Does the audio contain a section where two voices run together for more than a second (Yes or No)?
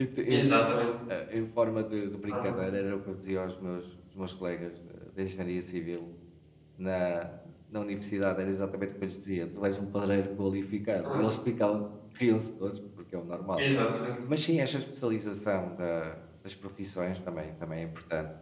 No